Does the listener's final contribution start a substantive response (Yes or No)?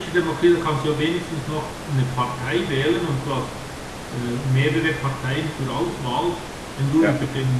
No